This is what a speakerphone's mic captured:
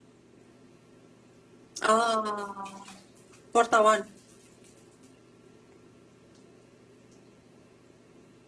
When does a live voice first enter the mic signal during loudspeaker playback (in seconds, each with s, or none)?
1.8 s